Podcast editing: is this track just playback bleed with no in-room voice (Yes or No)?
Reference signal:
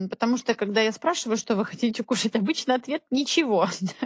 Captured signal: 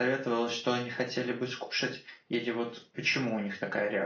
No